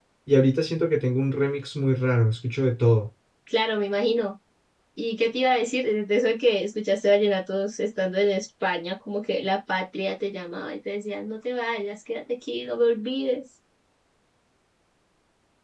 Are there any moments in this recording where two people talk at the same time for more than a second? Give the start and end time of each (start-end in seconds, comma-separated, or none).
none